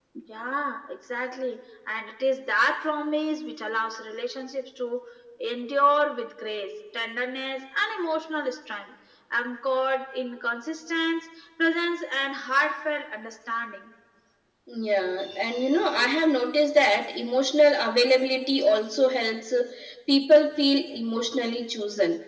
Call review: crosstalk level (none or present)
none